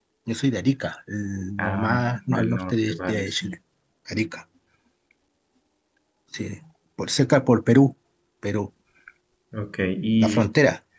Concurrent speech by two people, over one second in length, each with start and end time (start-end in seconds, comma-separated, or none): 1.6-3.5